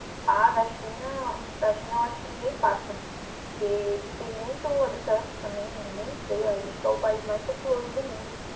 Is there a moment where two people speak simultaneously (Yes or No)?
No